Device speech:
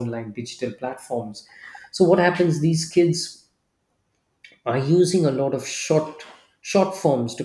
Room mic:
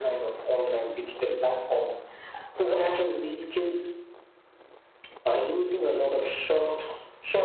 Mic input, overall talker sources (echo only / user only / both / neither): echo only